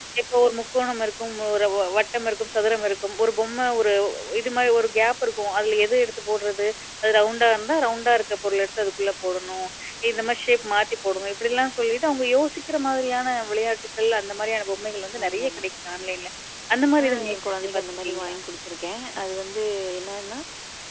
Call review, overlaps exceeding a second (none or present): present